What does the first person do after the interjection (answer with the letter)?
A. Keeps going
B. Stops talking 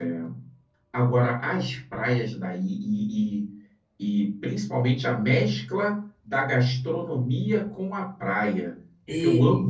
A